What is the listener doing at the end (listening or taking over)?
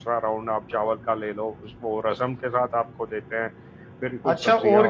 taking over